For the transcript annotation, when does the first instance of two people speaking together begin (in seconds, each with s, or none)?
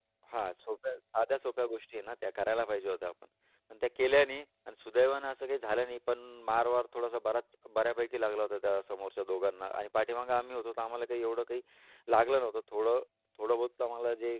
none